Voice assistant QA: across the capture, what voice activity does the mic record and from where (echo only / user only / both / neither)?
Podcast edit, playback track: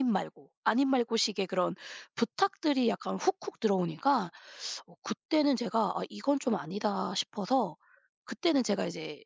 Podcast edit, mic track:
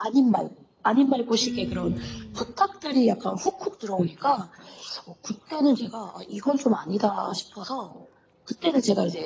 both